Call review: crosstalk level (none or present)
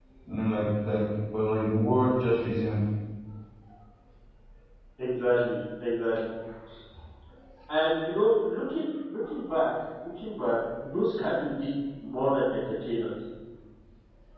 none